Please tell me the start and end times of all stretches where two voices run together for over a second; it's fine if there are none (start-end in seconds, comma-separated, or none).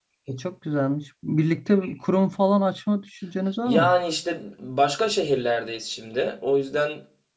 none